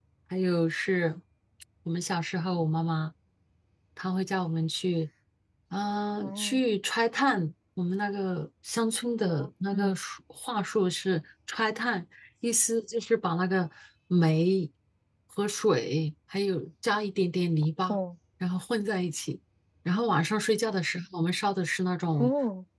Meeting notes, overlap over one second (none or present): none